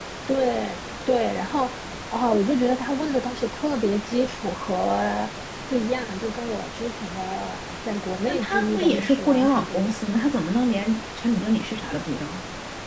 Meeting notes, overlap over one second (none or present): present